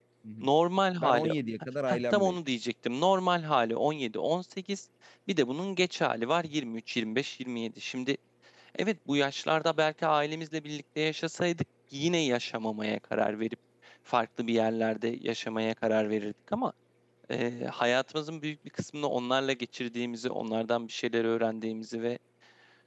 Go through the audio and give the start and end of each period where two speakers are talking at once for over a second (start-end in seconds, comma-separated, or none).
none